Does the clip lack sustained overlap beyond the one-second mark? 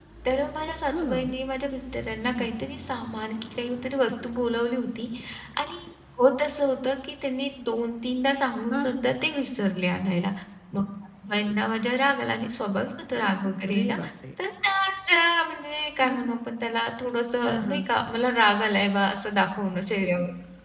Yes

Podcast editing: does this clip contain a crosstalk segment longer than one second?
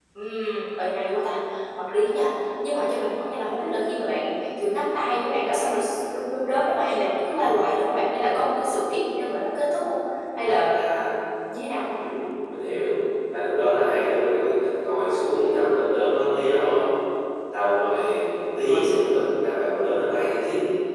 No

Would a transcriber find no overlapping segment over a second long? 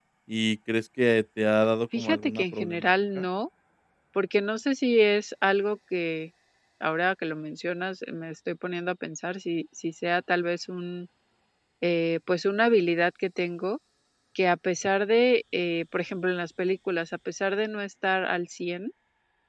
No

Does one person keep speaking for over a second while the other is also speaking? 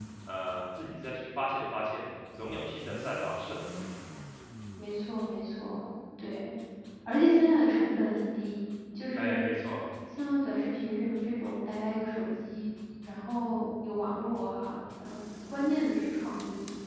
No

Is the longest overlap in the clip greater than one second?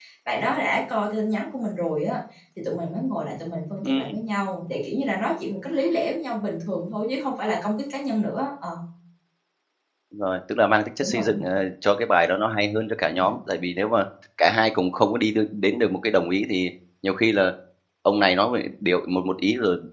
No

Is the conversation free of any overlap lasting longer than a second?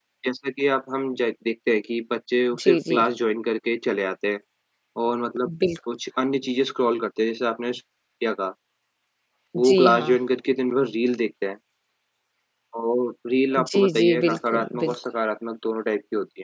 No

